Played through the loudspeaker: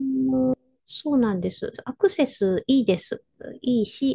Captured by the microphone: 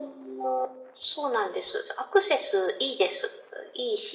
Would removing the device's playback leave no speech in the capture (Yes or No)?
Yes